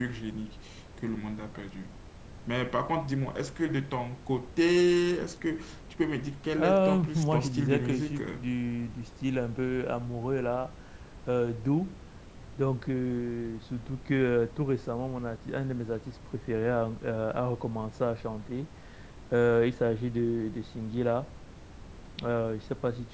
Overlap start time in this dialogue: 6.6 s

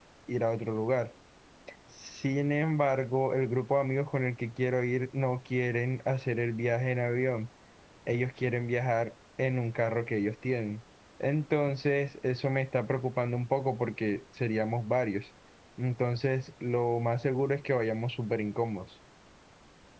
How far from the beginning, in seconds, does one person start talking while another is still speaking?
none

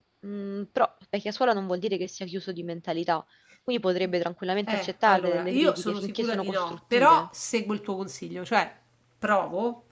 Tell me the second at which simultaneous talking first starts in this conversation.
4.7 s

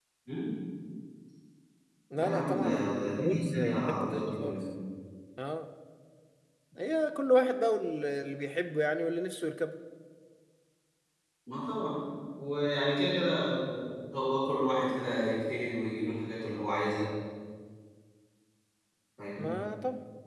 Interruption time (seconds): 2.1 s

